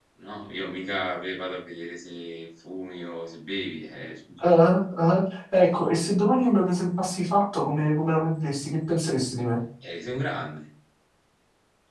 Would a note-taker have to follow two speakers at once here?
No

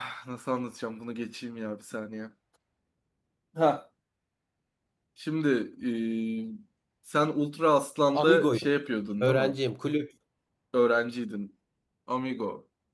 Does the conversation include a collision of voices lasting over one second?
No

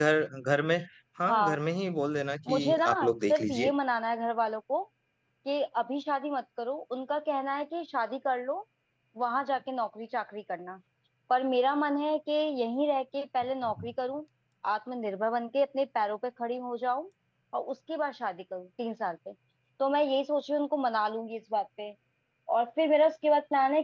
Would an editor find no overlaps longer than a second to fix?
No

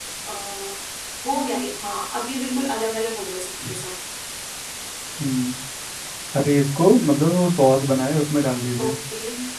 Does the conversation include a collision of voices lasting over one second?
No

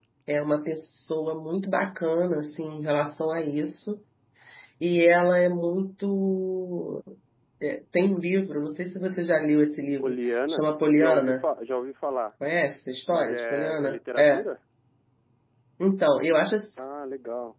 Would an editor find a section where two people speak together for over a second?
Yes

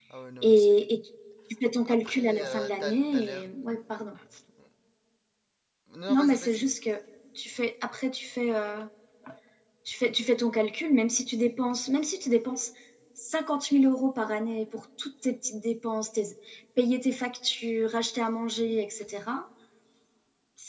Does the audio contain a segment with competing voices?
Yes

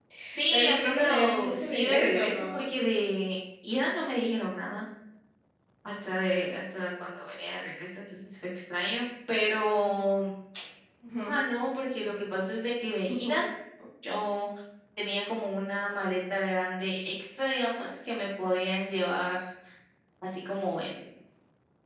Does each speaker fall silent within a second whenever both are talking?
No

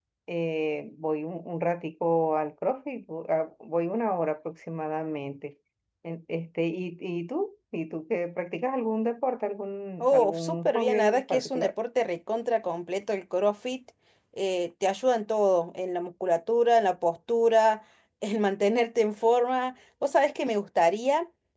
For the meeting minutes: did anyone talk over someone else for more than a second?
Yes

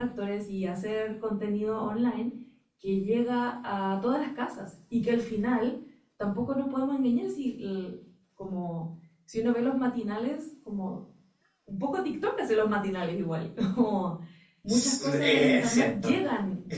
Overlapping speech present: Yes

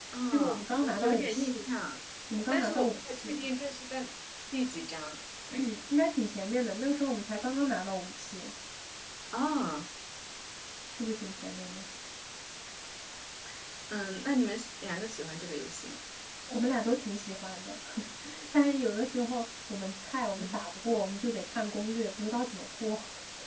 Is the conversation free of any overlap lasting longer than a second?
No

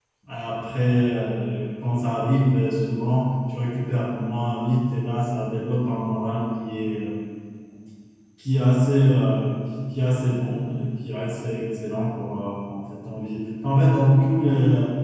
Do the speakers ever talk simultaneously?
No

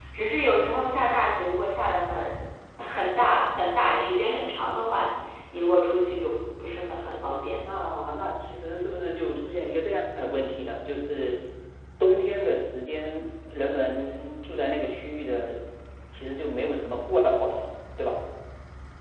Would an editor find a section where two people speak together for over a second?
No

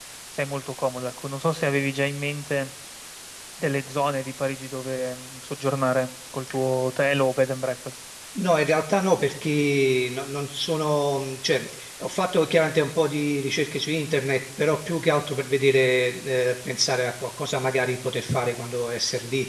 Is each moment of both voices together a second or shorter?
Yes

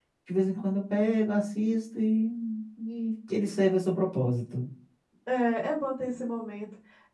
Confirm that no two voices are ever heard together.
Yes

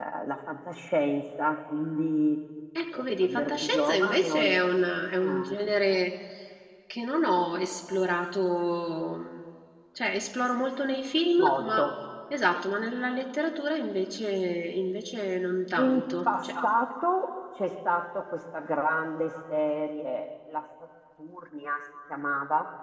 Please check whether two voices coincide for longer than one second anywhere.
Yes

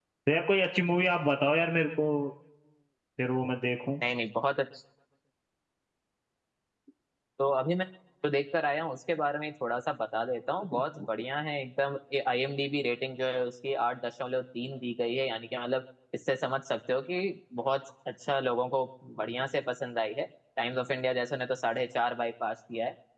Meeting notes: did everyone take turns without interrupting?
Yes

